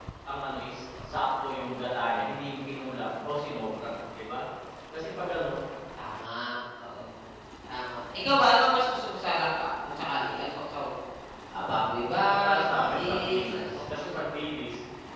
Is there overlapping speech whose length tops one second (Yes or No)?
Yes